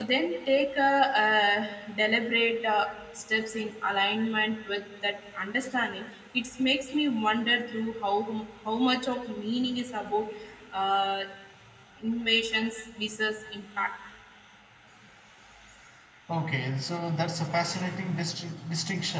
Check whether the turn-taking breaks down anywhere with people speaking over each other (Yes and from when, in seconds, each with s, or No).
No